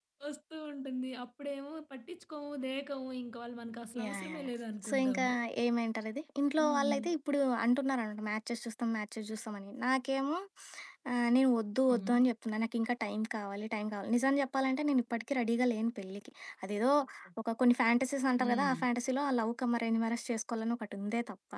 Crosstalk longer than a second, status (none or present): none